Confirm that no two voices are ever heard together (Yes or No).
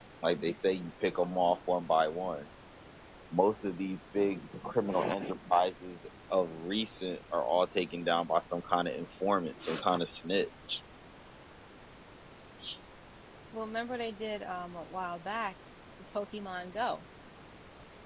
Yes